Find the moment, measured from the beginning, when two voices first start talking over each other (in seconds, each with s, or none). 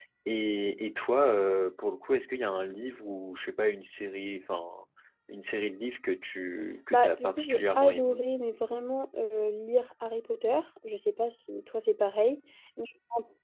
6.9 s